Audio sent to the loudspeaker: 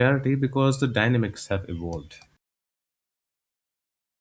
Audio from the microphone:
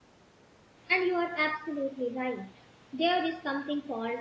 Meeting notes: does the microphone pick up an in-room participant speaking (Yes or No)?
Yes